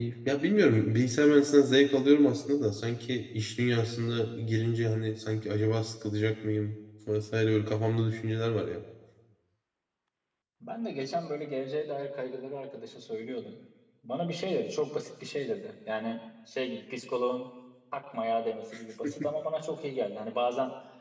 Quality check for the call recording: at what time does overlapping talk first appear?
none

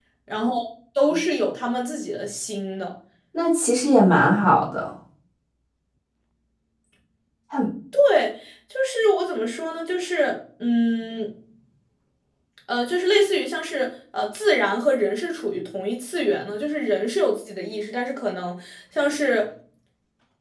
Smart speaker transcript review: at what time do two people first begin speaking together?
none

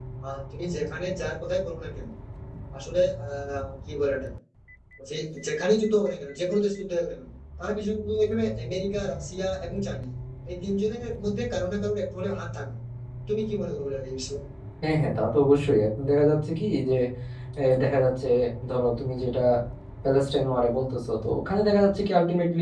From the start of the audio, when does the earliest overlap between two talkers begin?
none

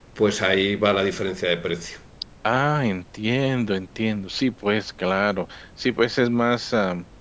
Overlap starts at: none

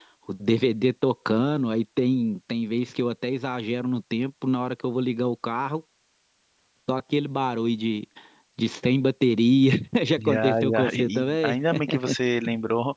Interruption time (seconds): 10.2 s

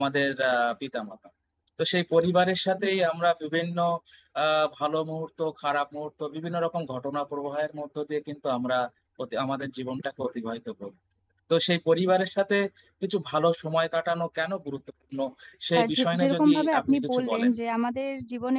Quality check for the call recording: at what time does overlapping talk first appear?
15.8 s

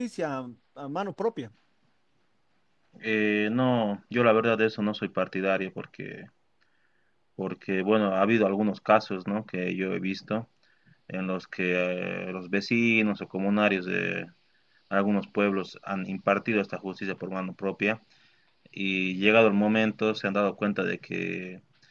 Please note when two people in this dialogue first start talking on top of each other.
none

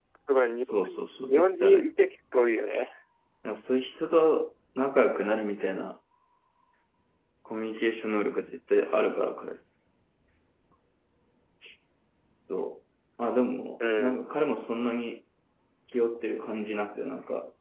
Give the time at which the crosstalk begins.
0.6 s

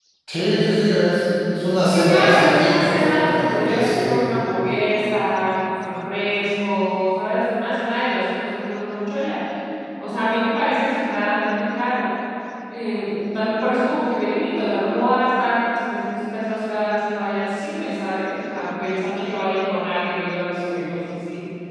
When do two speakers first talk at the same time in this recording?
1.8 s

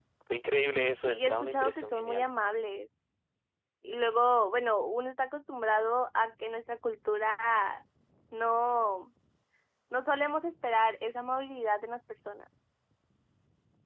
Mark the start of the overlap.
1.0 s

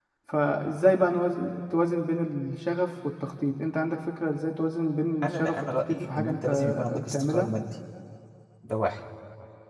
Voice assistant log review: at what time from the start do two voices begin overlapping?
5.2 s

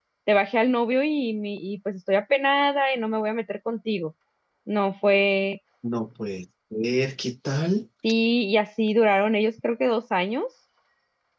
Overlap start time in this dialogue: none

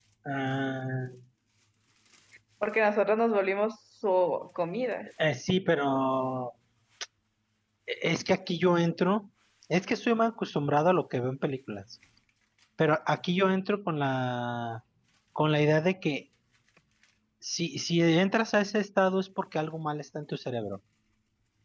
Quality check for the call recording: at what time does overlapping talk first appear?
none

